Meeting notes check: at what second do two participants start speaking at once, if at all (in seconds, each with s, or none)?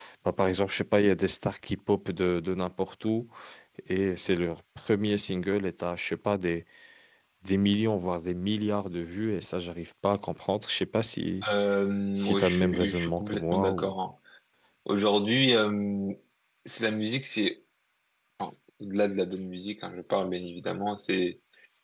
12.2 s